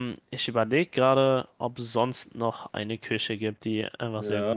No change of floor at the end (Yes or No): No